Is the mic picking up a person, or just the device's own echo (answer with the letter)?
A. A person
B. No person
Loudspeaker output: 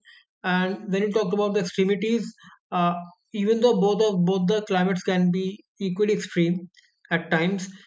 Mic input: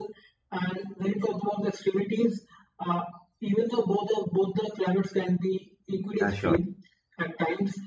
A